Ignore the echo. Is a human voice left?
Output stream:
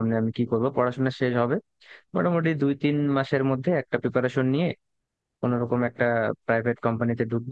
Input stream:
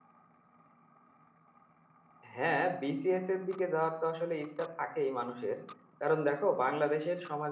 Yes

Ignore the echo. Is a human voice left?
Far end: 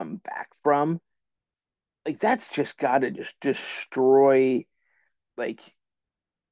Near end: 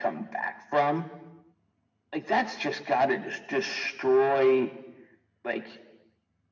No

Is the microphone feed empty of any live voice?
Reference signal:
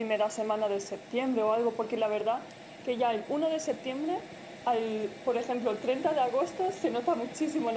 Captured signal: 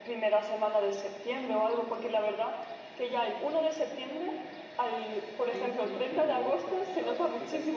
No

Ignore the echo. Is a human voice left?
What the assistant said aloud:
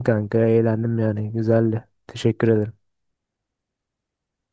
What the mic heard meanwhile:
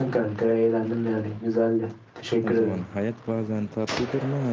Yes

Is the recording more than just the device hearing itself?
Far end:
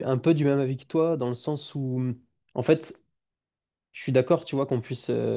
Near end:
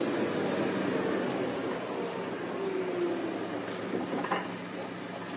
No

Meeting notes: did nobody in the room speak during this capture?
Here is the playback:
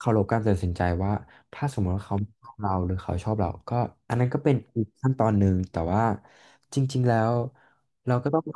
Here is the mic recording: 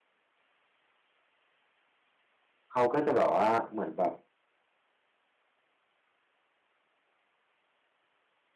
No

